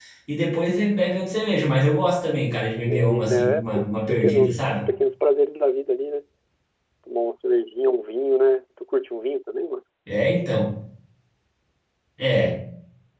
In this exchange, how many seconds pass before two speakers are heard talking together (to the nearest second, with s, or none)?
3 s